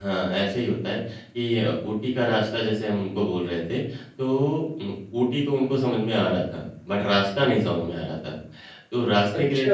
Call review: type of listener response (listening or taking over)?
listening